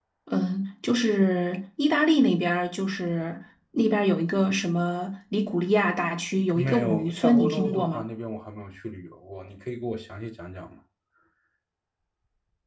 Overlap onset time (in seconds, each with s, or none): 6.6 s